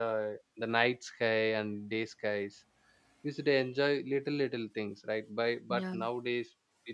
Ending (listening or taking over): listening